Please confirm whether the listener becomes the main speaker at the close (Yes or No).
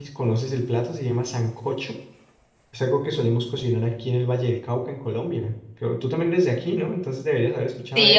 Yes